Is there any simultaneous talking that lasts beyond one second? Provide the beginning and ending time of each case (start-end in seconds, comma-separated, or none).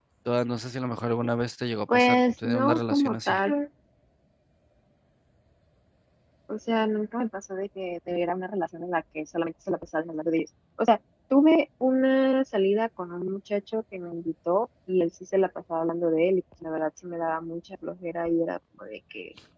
1.9-3.4